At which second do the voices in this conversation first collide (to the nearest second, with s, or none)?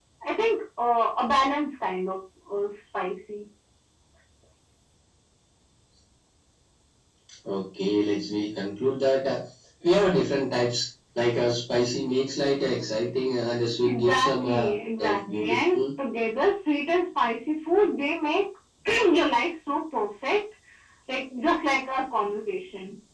14 s